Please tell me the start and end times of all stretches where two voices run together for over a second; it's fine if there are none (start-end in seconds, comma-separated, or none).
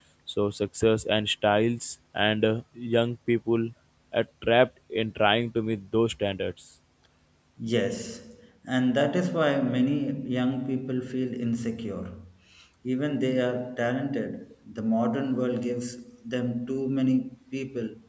none